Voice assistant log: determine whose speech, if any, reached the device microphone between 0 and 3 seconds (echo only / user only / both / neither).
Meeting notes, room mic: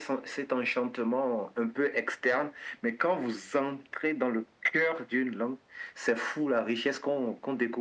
echo only